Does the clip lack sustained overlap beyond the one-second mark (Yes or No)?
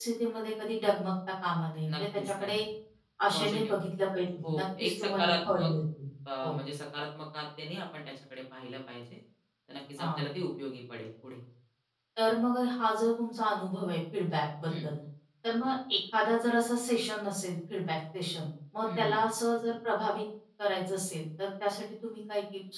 No